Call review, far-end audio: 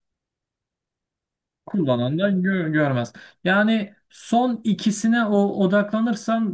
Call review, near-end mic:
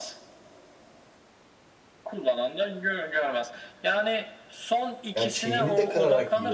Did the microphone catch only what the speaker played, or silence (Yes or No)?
No